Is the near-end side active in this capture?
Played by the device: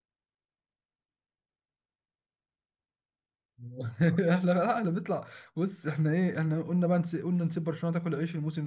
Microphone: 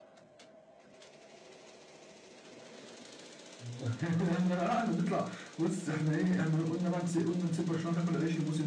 No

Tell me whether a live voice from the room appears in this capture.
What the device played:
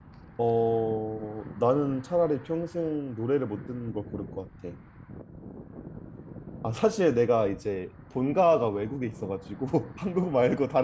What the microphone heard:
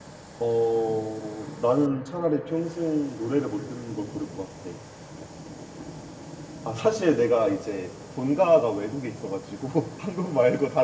No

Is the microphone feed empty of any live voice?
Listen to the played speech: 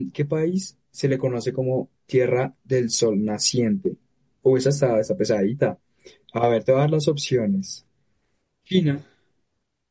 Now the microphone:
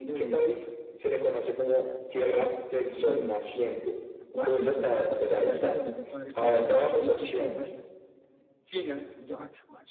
No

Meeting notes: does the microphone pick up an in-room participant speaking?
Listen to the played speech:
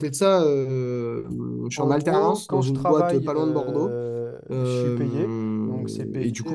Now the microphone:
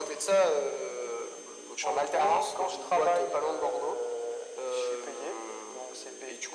No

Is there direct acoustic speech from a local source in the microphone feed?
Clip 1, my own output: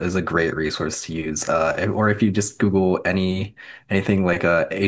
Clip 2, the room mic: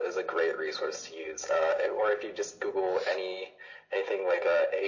No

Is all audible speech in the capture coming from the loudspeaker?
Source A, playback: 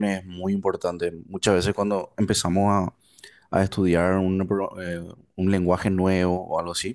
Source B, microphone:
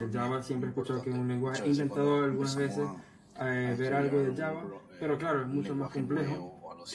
No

